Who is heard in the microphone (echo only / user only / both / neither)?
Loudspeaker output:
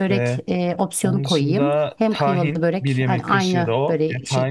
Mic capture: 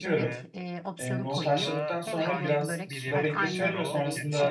both